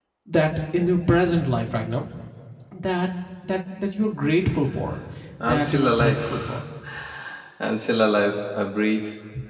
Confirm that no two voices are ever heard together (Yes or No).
No